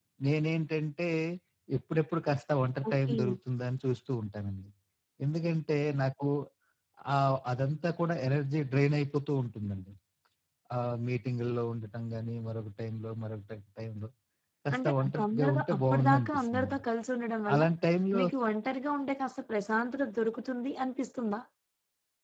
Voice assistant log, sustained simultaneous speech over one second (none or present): present